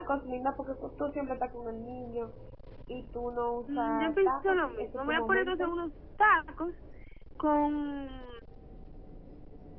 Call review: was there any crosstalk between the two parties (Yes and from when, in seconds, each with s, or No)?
Yes, from 3.7 s